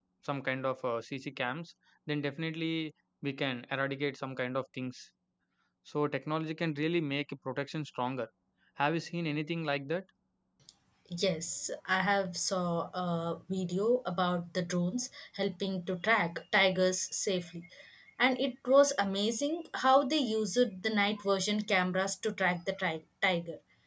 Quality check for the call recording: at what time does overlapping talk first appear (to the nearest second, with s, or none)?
none